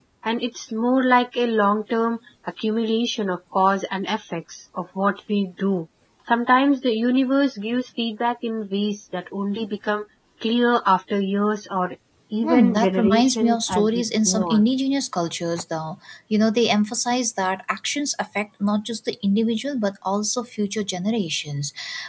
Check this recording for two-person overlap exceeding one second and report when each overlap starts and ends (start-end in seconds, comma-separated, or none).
12.4-14.6